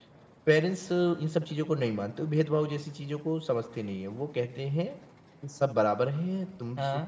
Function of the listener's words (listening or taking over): listening